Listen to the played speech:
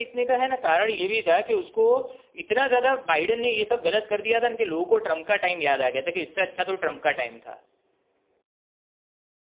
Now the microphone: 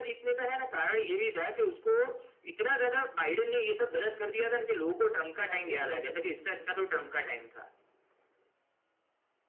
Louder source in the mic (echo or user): echo